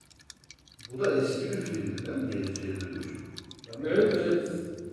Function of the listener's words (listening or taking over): taking over